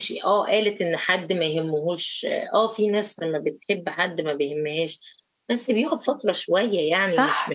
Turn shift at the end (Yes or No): No